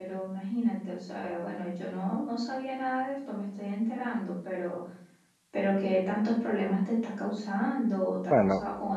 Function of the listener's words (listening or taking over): taking over